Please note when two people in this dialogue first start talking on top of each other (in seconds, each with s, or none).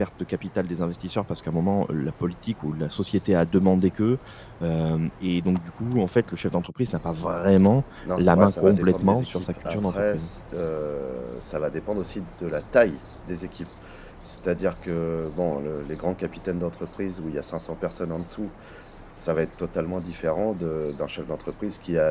8.0 s